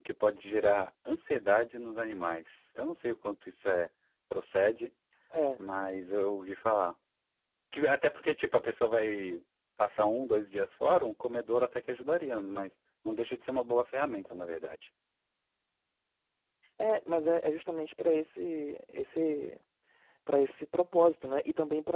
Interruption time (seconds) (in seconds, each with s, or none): none